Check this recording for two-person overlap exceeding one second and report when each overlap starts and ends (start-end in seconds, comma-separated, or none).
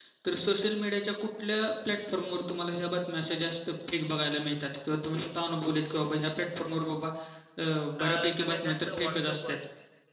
8.0-9.6